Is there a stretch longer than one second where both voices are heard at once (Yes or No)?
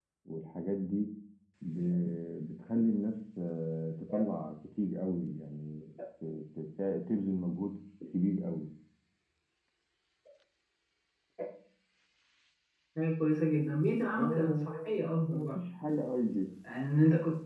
Yes